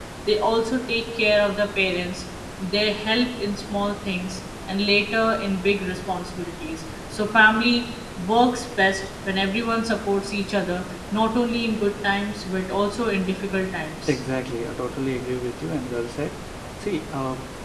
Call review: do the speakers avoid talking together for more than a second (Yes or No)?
Yes